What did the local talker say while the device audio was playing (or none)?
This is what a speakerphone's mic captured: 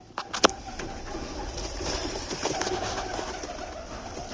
none